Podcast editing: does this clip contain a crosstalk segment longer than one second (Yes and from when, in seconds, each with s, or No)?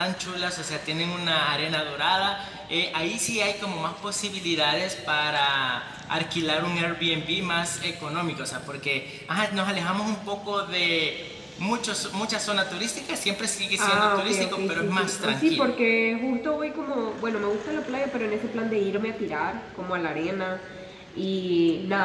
Yes, from 13.8 s